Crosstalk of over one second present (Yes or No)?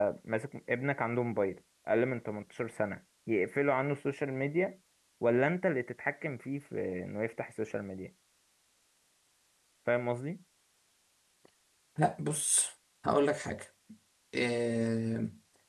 No